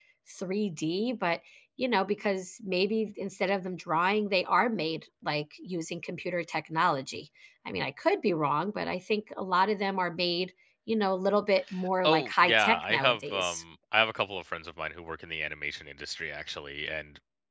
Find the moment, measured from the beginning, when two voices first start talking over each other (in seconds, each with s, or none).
12.0 s